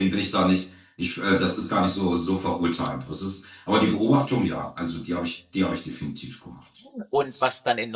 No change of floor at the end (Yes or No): No